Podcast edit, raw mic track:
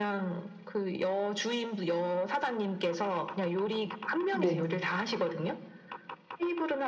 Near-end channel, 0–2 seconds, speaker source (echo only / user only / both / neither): echo only